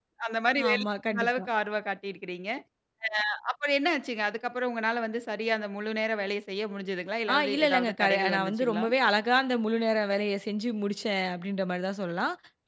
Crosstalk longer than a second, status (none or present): present